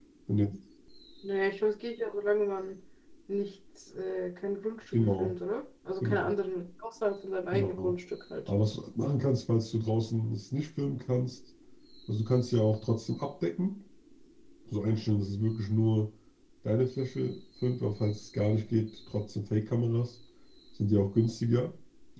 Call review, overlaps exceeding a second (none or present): none